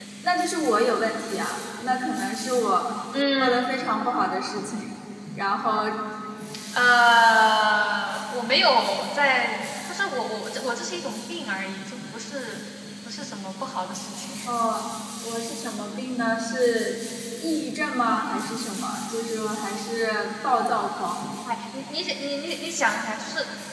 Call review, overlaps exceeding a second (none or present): none